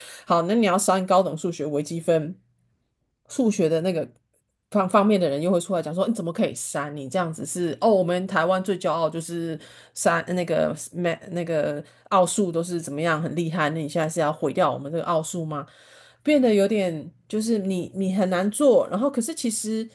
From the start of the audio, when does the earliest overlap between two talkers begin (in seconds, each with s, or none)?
none